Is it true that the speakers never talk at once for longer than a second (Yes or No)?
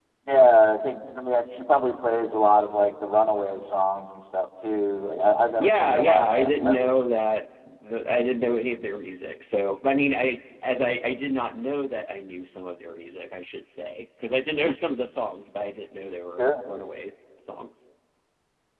No